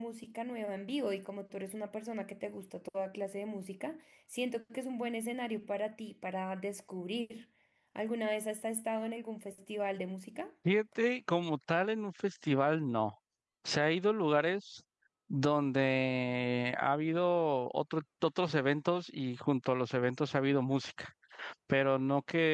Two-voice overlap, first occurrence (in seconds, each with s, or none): none